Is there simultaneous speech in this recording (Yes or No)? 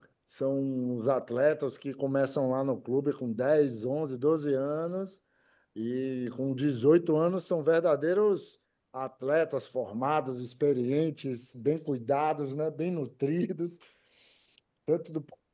No